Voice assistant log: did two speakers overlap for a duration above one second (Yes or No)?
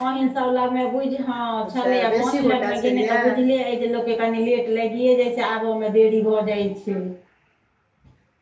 Yes